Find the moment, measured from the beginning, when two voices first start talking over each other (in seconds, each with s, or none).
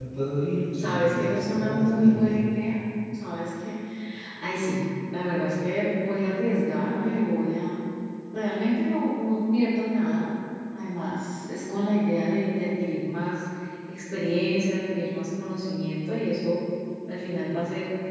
0.7 s